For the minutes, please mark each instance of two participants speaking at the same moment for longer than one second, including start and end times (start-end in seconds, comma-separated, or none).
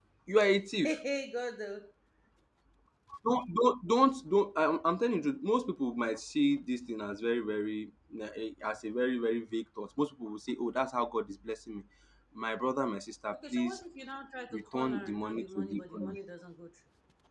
14.5-16.1